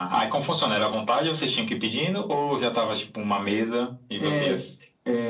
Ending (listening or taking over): taking over